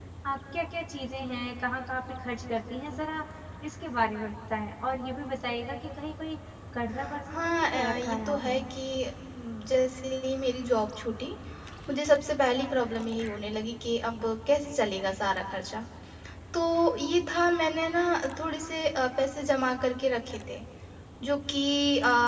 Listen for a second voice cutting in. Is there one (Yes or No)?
Yes